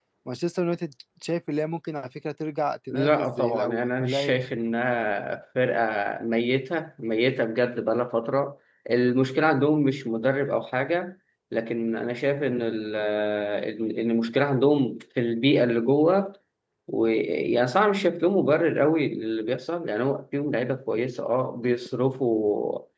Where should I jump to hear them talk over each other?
2.9 s

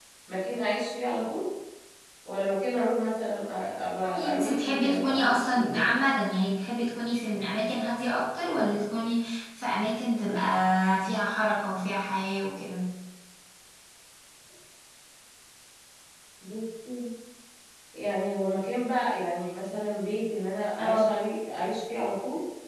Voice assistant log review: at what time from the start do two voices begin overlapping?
4.1 s

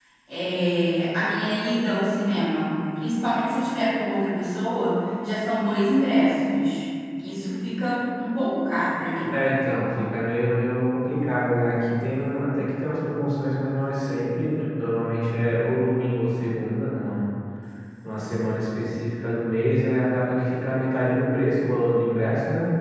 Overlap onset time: none

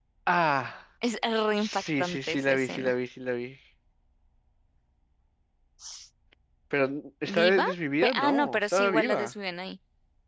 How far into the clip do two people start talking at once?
1.6 s

